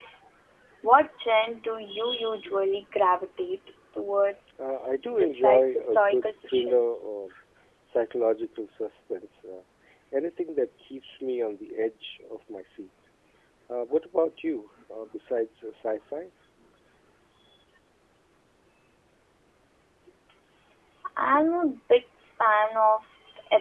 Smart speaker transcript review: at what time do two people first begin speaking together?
5 s

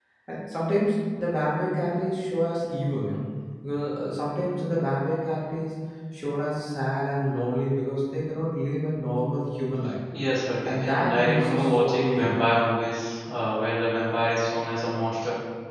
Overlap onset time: 11 s

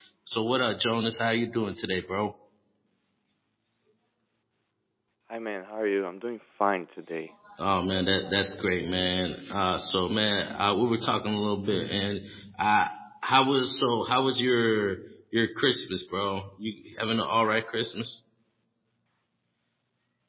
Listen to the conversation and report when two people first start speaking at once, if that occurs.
none

